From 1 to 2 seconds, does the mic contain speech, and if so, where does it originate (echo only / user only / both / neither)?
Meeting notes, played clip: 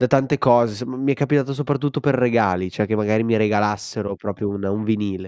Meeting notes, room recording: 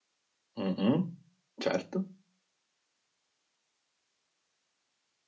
user only